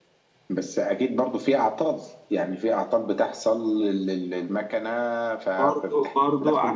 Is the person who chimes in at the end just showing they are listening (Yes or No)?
No